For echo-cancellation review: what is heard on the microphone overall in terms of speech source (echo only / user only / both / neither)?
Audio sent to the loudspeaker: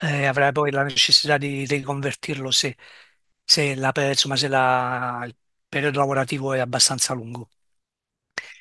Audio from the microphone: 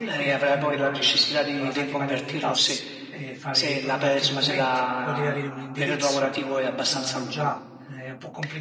both